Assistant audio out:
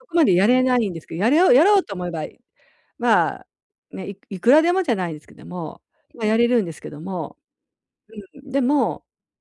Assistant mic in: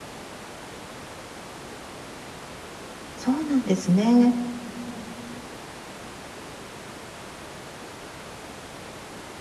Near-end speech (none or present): present